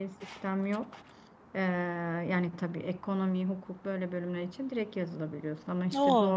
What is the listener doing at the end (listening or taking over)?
listening